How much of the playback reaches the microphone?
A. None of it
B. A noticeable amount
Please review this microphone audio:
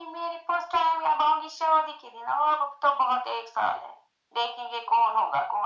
B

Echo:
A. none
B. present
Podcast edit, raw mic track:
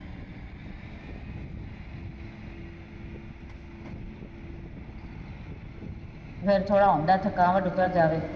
A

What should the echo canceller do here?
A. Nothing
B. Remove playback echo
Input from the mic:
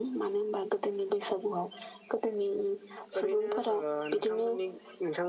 B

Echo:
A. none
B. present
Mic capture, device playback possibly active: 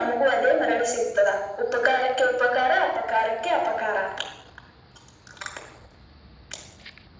B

